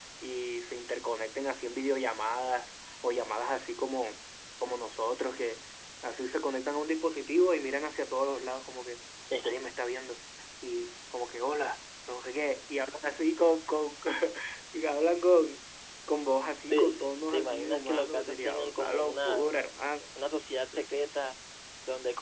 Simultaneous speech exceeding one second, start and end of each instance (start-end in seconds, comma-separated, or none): 16.7-19.5